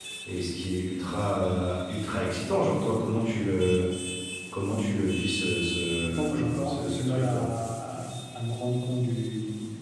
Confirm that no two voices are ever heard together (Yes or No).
No